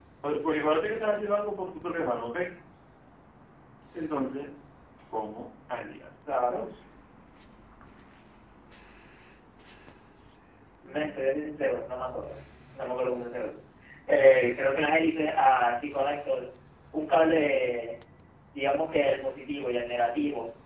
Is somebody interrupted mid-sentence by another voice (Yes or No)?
Yes